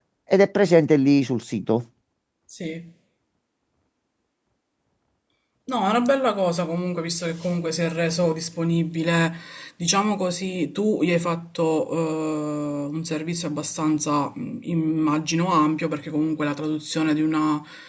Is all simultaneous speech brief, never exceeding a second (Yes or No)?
Yes